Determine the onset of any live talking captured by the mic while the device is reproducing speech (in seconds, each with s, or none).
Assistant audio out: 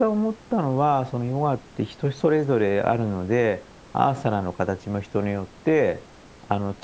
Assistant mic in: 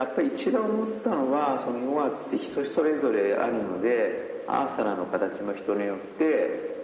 none